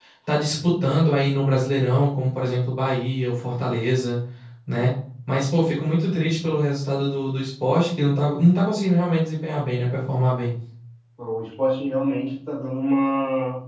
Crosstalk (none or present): none